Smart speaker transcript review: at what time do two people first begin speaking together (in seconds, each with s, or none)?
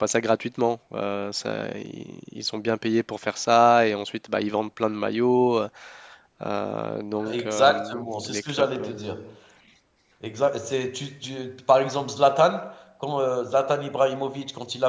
7.3 s